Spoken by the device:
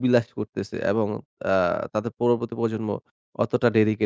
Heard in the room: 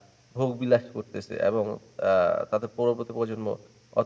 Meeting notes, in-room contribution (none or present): none